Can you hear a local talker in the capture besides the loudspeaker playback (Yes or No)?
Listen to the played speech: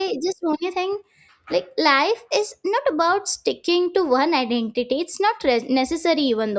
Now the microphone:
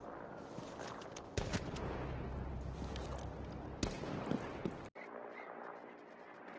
No